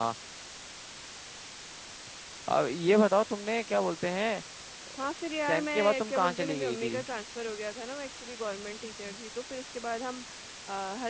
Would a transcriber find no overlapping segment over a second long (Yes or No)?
No